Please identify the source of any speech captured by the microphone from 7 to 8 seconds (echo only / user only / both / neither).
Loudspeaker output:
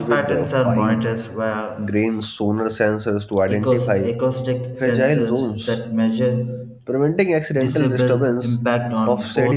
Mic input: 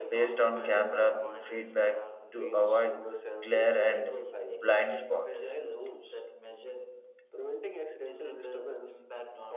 echo only